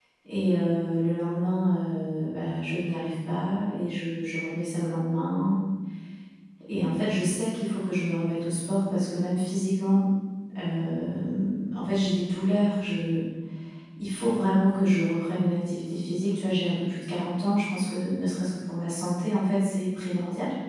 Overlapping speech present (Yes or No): No